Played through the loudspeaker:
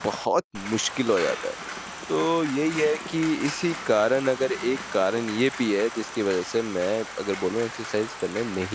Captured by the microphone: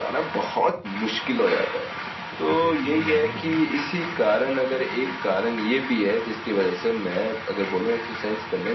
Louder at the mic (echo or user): echo